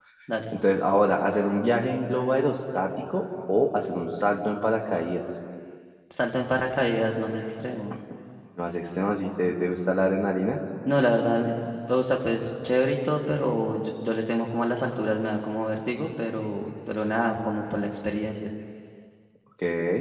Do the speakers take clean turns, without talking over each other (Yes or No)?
Yes